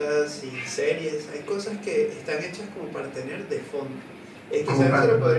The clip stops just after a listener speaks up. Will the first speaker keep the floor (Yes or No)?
Yes